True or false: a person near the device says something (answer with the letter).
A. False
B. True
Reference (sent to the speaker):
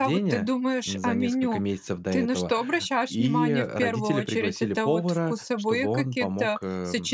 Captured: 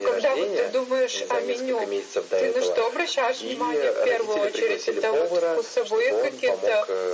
A